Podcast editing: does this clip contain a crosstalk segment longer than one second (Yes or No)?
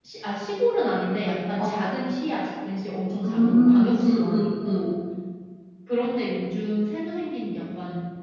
Yes